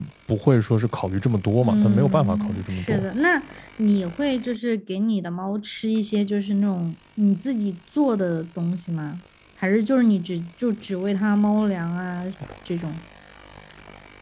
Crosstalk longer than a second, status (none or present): present